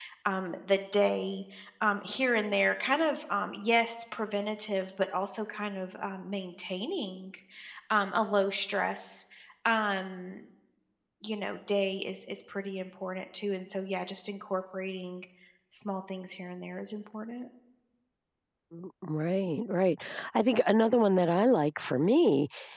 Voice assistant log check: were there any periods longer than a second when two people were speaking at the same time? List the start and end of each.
none

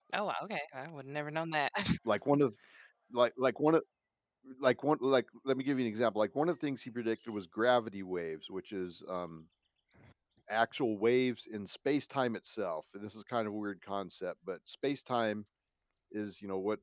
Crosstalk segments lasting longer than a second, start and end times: none

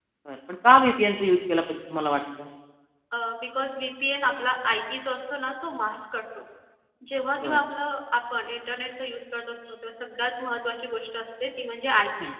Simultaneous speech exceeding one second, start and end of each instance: none

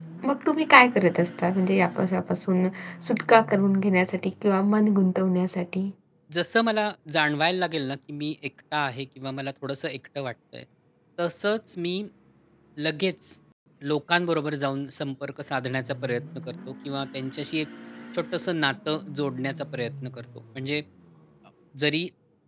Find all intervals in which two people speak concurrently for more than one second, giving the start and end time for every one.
none

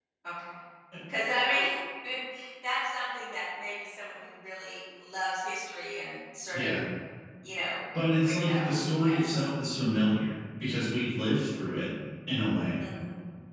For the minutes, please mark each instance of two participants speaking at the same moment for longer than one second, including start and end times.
8.2-9.4

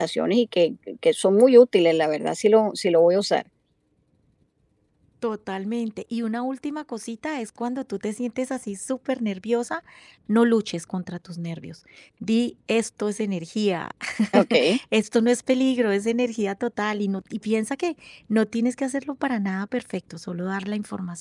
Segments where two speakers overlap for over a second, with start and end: none

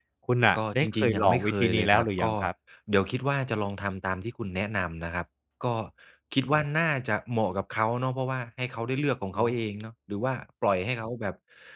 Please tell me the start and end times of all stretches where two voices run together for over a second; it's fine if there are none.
0.6-2.3

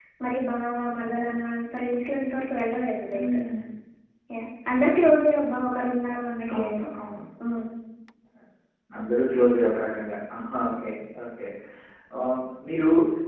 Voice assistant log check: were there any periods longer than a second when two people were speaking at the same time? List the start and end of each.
none

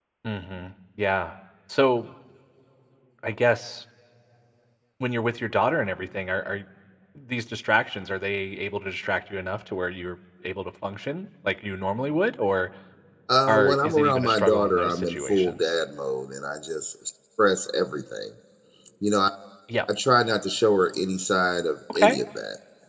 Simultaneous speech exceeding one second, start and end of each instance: 13.5-15.8

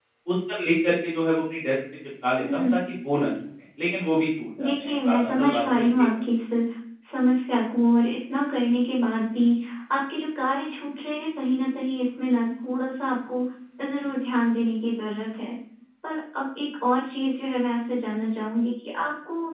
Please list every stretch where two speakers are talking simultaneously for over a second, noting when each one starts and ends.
4.6-5.9

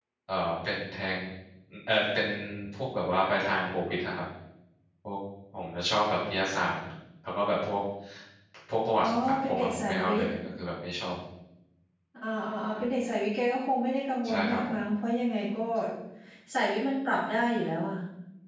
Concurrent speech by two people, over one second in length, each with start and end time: 9.0-10.3

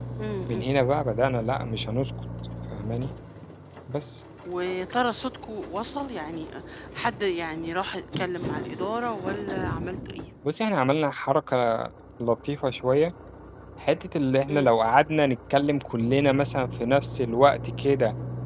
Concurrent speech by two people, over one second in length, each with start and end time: none

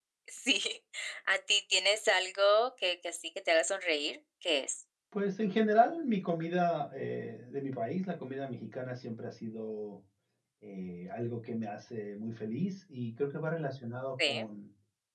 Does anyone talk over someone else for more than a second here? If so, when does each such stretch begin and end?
none

